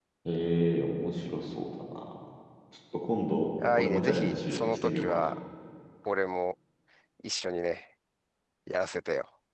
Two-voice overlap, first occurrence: 3.6 s

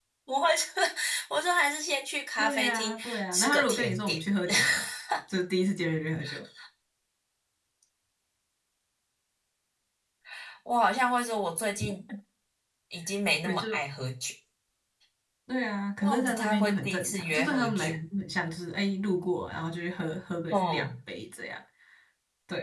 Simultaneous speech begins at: 2.4 s

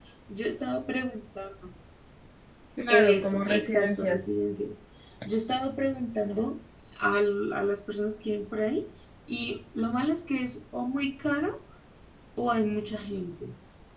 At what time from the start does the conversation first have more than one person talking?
2.9 s

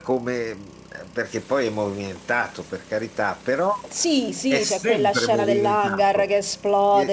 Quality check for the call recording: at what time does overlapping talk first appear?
4.5 s

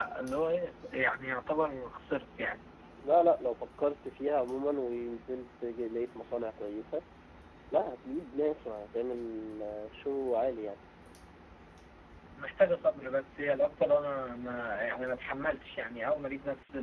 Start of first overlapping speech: none

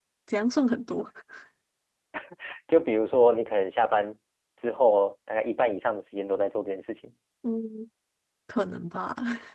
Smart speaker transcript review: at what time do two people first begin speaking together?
none

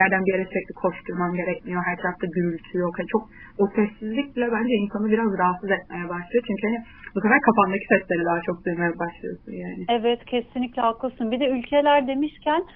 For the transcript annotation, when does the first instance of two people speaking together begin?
none

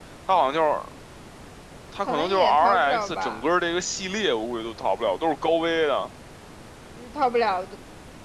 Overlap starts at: 2.1 s

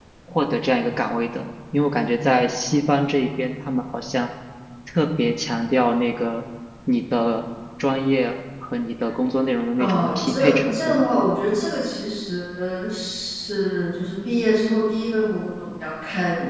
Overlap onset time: 9.8 s

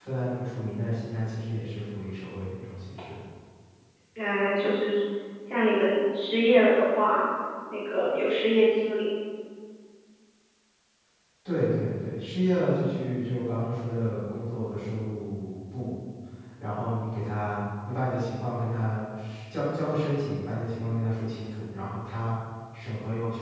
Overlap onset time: none

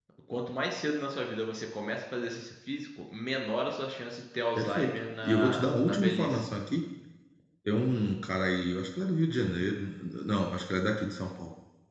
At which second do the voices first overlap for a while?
4.5 s

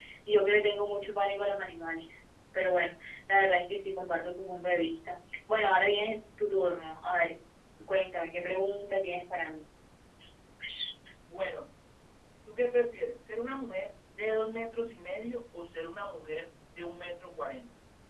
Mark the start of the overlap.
none

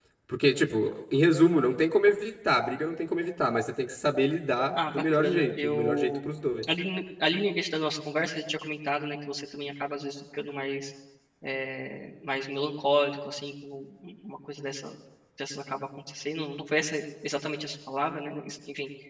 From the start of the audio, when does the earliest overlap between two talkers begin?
4.8 s

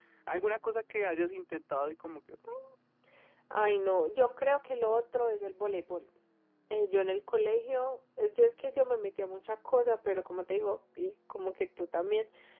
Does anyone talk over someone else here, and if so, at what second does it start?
none

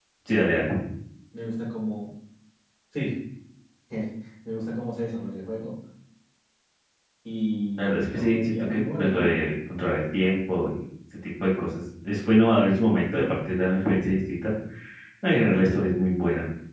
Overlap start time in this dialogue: 7.8 s

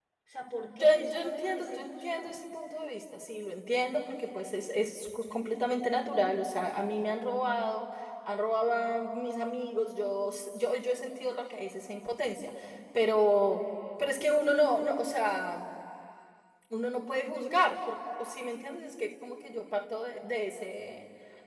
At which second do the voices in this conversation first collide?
0.7 s

